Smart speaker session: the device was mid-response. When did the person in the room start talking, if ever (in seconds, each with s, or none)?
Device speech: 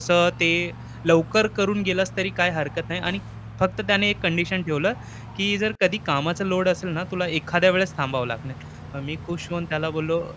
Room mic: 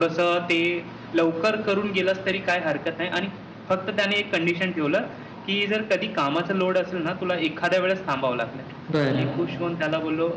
8.9 s